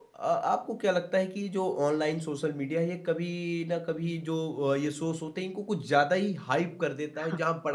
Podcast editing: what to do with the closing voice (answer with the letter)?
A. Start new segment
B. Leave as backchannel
B